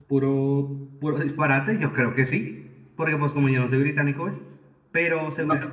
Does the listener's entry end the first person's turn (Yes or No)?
No